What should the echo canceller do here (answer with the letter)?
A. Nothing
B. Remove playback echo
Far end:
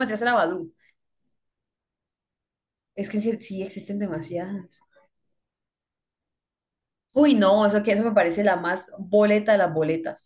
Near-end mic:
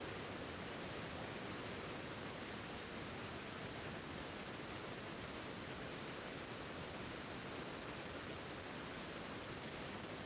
A